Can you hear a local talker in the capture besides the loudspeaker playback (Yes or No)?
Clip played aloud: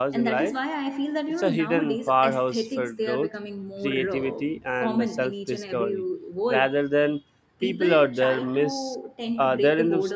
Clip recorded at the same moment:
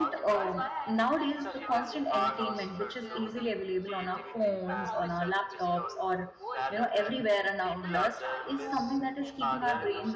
Yes